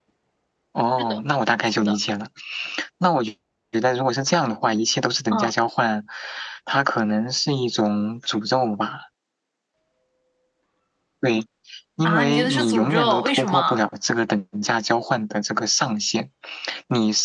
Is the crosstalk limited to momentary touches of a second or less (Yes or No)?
No